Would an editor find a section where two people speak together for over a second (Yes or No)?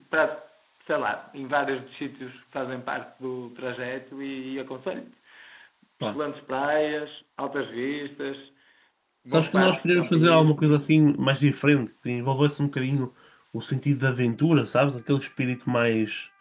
Yes